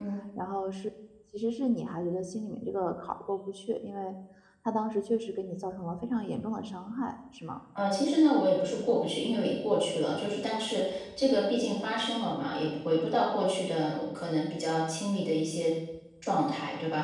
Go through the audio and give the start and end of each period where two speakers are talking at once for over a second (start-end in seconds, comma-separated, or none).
none